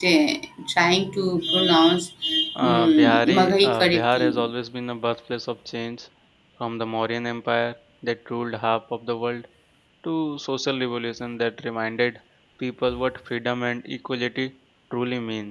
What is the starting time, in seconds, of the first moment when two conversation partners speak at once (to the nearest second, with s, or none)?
3 s